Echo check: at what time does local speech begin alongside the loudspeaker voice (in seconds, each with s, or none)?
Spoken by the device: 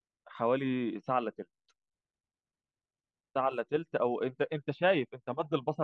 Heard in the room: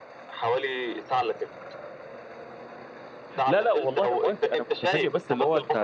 3.4 s